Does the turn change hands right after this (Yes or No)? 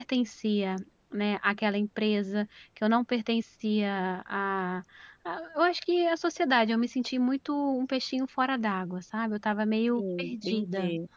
Yes